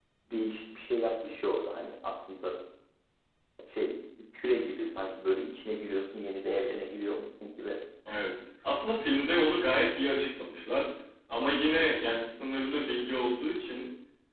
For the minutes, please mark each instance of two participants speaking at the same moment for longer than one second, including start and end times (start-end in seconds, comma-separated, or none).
none